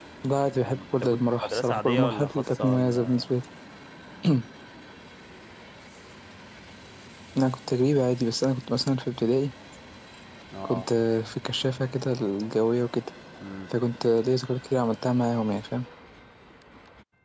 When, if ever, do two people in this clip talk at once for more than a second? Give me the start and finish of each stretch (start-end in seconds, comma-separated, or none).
0.6-3.3